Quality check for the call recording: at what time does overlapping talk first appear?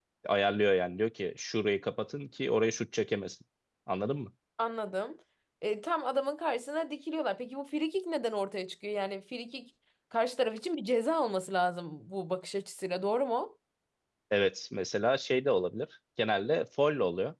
none

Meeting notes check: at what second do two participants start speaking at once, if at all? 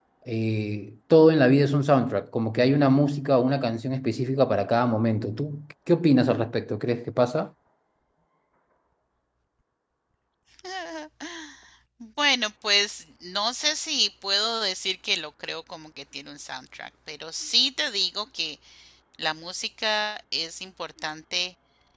none

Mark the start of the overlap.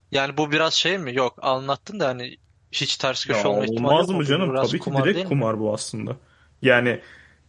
3.3 s

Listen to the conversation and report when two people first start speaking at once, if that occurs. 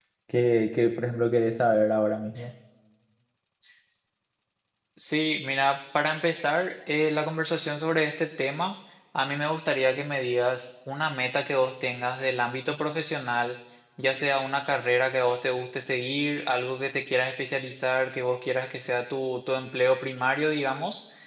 none

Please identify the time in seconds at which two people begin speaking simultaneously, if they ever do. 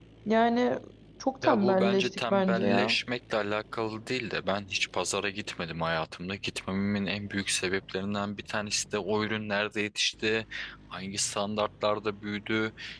1.4 s

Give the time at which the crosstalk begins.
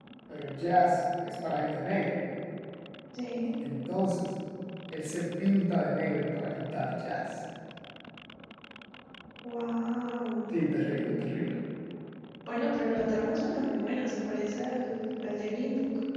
none

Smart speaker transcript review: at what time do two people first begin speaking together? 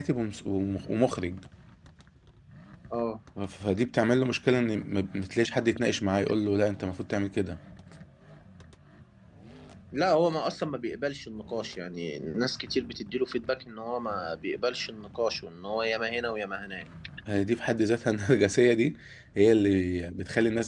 none

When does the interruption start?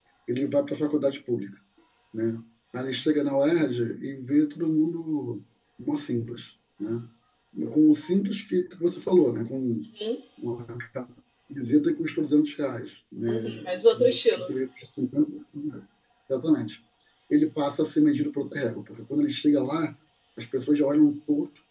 13.3 s

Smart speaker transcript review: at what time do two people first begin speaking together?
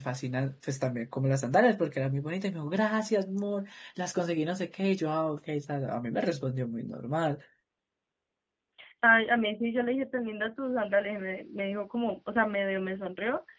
none

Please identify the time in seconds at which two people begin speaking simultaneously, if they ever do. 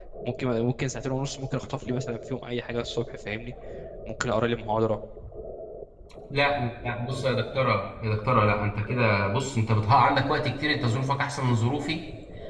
none

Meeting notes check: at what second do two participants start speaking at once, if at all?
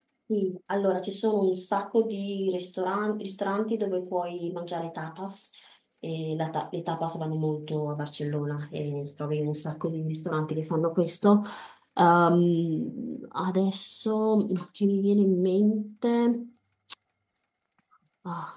none

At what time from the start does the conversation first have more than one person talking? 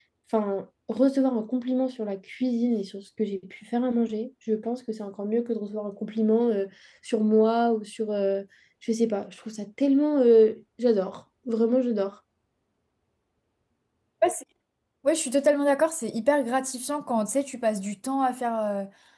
none

